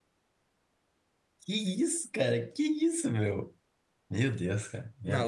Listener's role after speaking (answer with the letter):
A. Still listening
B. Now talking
B